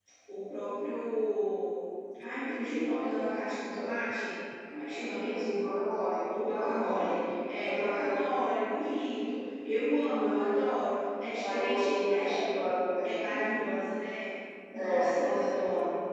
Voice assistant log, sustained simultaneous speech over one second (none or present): present